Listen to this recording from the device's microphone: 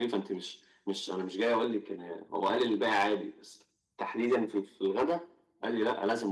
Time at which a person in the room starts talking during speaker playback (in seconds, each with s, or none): none